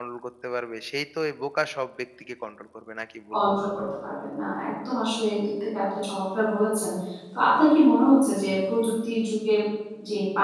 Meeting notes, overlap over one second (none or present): none